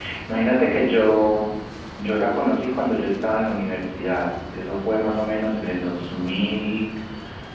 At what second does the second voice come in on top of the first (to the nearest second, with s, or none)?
none